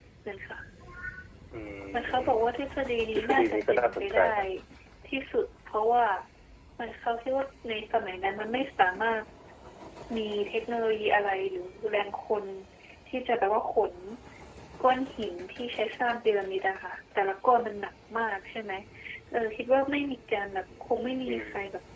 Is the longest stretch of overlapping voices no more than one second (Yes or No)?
No